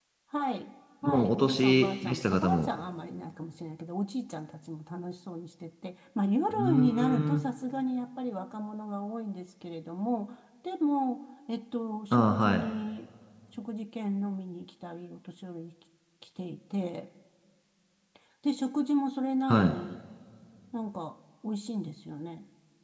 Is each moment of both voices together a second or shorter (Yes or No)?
No